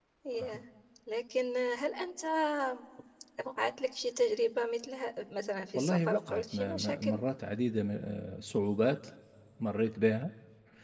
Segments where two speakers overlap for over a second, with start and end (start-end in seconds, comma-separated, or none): 5.8-7.2